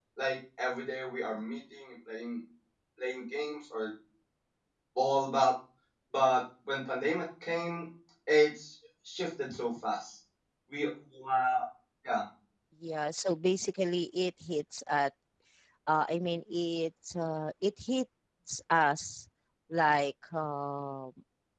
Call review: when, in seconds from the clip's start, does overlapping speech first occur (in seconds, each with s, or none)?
none